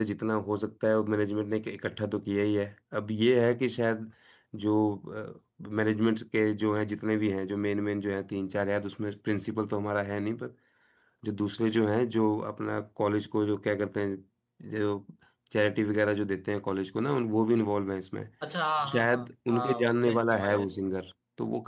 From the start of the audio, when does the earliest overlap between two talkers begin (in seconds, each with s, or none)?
18.9 s